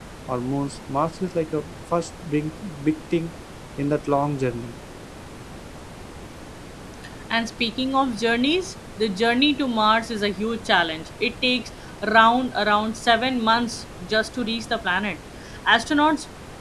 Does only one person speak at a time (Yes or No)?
Yes